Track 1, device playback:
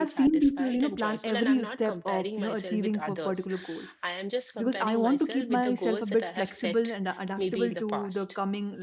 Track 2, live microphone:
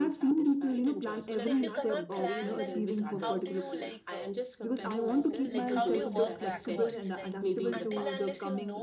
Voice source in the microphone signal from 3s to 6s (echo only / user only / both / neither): both